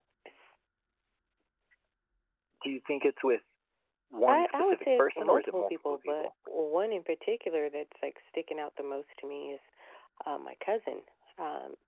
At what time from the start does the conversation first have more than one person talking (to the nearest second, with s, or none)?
4 s